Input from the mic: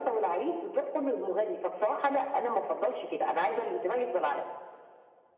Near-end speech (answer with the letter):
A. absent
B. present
A